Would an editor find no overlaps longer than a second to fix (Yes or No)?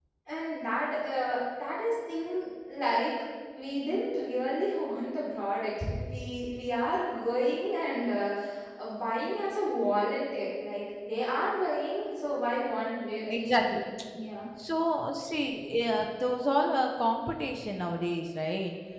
Yes